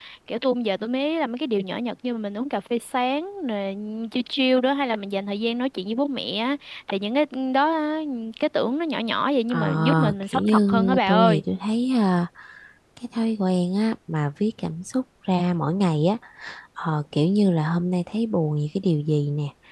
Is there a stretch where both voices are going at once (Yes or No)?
Yes